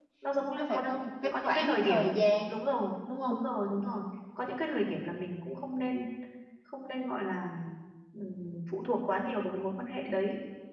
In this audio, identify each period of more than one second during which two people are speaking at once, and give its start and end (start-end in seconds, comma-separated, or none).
0.6-2.2